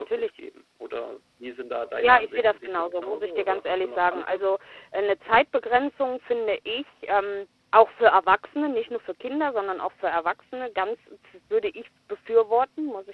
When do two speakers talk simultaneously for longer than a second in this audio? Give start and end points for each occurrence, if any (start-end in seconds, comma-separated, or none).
2.0-4.5